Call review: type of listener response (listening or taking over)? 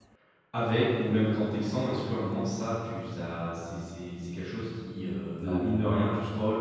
listening